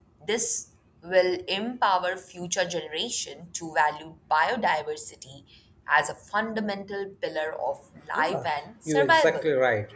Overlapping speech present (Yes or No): Yes